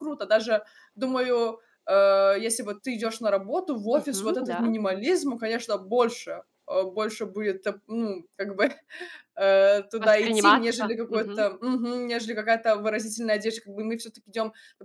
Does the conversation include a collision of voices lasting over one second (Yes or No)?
Yes